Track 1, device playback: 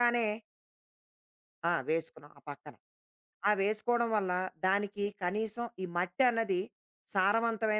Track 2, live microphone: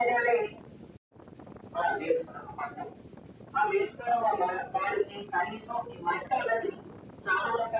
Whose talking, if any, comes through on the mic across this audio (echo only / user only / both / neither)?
echo only